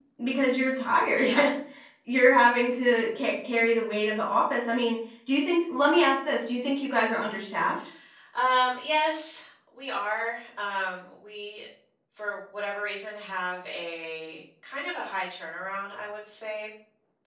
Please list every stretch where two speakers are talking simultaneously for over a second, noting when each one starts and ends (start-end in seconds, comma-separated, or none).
none